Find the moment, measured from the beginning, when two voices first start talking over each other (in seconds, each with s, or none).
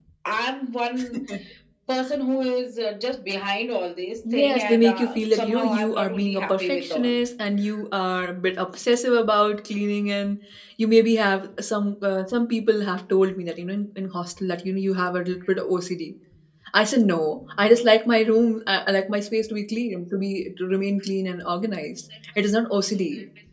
4.2 s